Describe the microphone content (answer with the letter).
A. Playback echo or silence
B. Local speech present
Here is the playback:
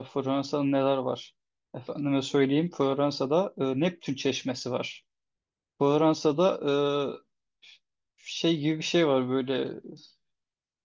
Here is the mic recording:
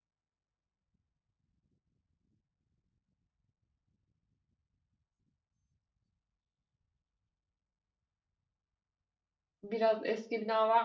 B